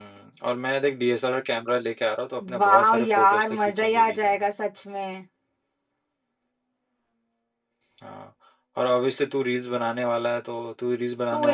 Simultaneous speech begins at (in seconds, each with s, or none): 2.4 s